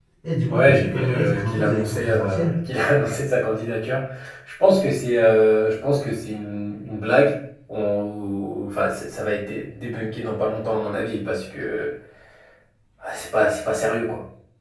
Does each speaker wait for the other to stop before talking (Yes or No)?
No